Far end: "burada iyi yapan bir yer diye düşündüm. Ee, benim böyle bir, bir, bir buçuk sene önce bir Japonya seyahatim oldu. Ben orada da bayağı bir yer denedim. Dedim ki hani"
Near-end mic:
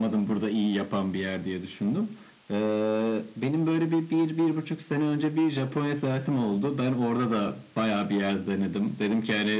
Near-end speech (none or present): none